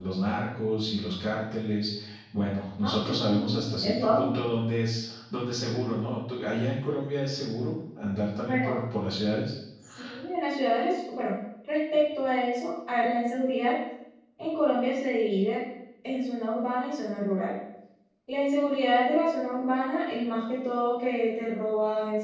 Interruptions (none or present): present